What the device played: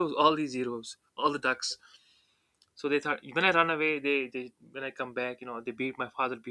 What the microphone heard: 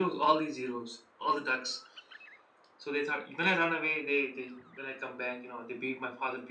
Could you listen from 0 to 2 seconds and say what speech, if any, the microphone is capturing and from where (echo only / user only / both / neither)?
echo only